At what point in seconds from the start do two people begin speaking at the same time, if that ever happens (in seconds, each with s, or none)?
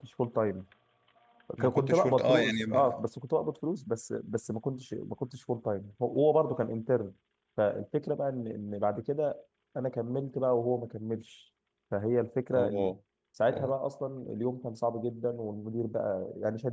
1.6 s